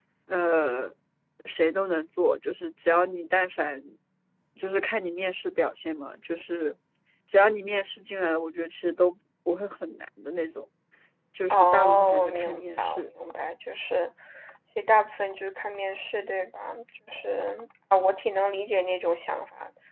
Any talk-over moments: Yes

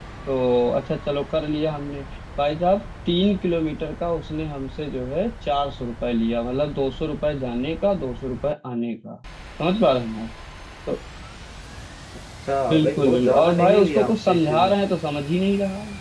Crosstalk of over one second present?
Yes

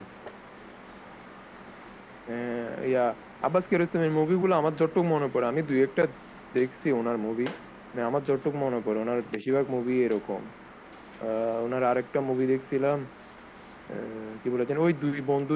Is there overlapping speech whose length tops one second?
No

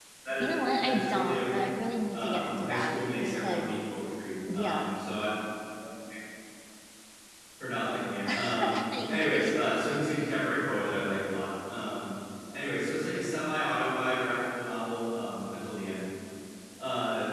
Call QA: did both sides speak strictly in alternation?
No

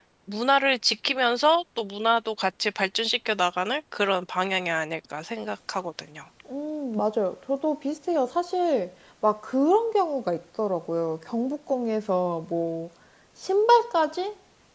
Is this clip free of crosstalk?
Yes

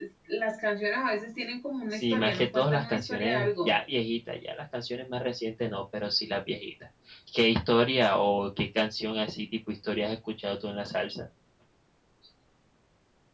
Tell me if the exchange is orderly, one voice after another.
No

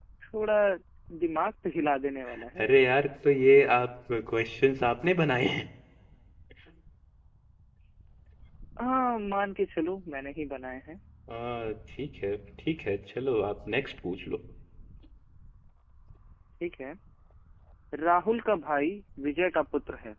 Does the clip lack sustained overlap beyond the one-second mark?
Yes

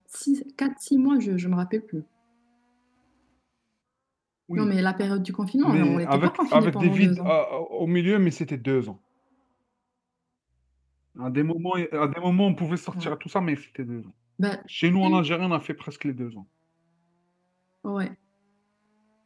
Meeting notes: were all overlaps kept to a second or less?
No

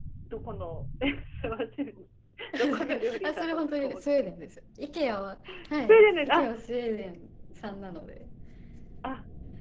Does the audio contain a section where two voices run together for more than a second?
Yes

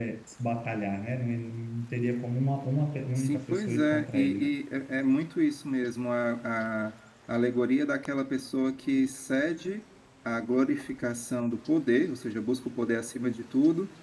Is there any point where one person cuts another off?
Yes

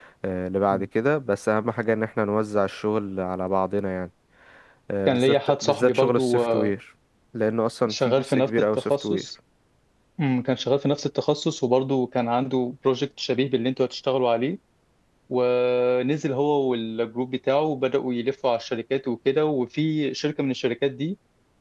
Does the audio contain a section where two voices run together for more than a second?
Yes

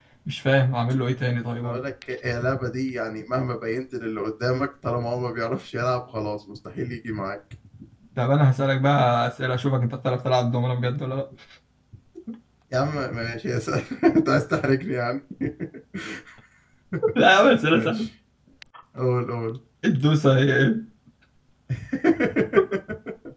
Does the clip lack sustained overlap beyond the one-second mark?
Yes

